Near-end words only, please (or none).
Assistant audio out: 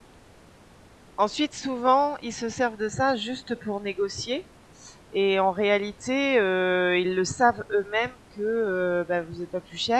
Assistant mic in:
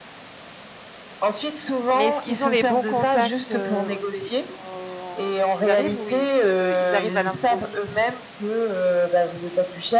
Mais est-ce qu'ils ont les bons contacts euh, au télé- en- quand ils arrivent ou ils, se- ils arrivent à l'improviste